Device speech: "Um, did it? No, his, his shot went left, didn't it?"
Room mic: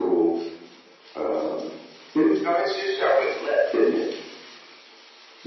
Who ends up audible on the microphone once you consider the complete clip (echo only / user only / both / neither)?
echo only